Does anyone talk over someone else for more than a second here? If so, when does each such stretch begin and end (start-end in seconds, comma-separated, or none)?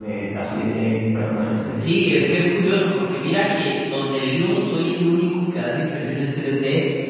none